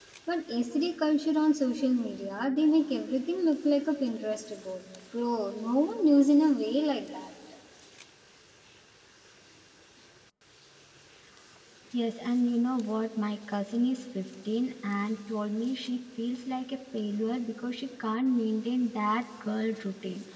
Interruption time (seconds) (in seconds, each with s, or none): none